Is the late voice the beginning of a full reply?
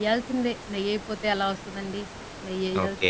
Yes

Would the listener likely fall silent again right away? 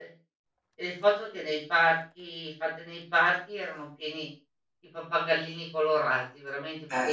No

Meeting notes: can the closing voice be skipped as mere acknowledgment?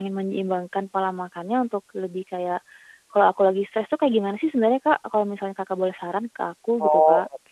No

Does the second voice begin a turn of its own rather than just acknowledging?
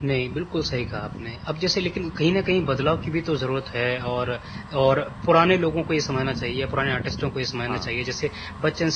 No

